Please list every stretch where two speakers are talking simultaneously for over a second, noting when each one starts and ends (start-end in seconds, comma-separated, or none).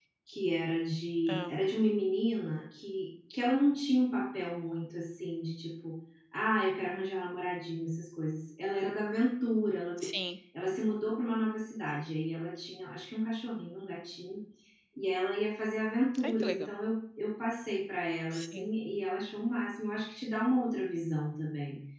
none